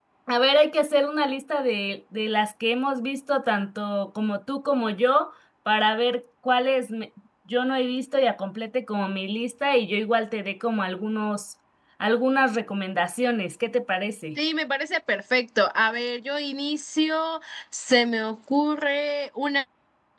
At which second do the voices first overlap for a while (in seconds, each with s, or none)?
none